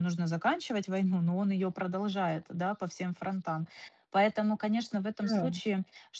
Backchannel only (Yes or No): Yes